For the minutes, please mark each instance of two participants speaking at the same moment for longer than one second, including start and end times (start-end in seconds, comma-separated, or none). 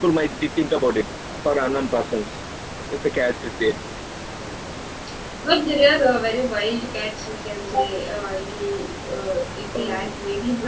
none